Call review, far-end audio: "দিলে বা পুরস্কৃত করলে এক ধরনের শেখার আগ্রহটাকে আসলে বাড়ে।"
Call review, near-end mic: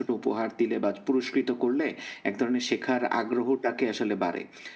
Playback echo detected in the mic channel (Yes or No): Yes